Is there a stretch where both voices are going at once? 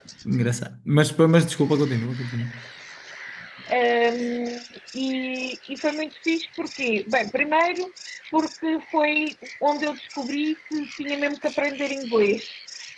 No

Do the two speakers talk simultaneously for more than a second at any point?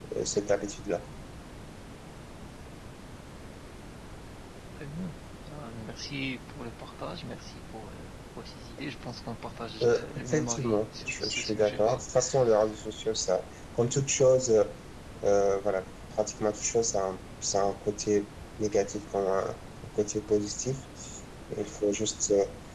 Yes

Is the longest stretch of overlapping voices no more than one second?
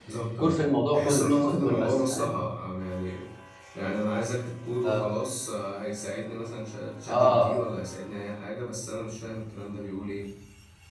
No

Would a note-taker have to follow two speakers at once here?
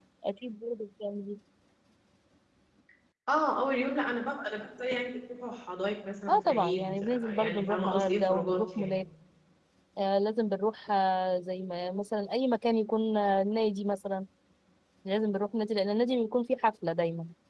Yes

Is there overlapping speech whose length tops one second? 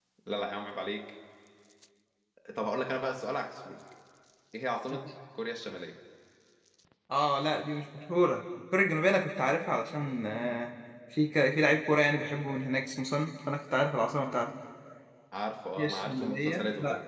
Yes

